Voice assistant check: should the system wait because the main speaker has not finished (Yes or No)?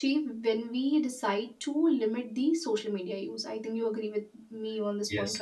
No